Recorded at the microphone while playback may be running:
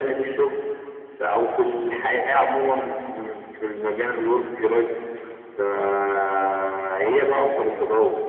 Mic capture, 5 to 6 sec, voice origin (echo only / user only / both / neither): echo only